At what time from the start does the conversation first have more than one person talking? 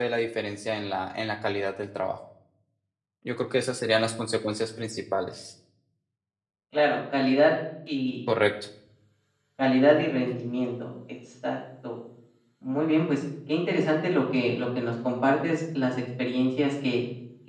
none

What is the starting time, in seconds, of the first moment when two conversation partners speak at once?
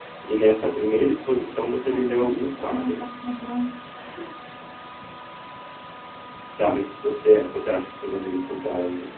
1.8 s

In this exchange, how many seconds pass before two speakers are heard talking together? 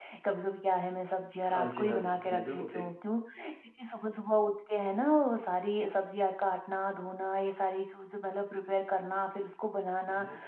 1.4 s

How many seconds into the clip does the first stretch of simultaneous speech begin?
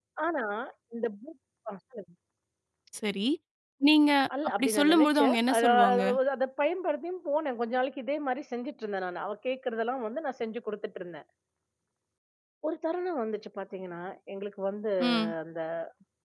4.6 s

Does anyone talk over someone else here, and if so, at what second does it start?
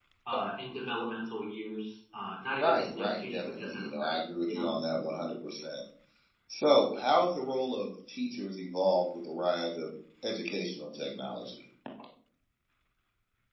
2.6 s

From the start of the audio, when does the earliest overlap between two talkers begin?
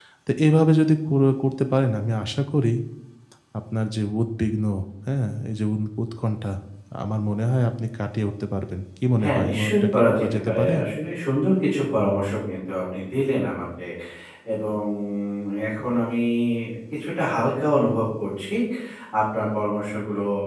9.2 s

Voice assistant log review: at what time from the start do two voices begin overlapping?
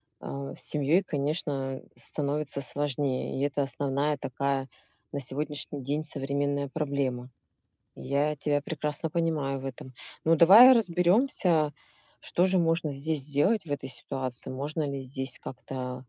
none

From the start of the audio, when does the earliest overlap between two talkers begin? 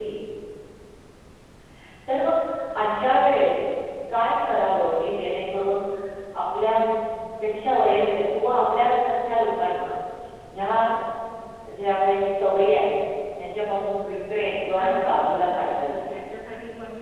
14.7 s

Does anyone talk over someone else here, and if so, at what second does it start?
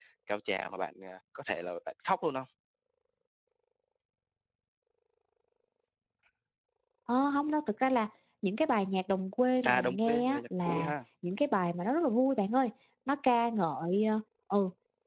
9.6 s

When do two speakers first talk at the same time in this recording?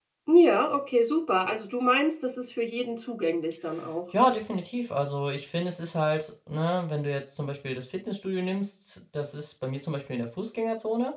none

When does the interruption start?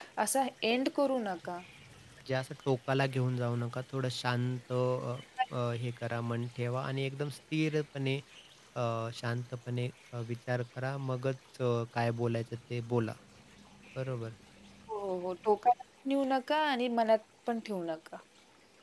none

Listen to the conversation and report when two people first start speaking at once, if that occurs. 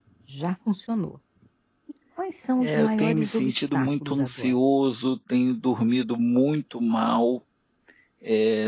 2.6 s

